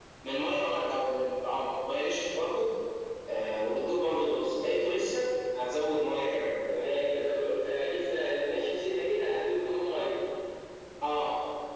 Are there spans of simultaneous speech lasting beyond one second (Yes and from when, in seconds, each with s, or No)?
No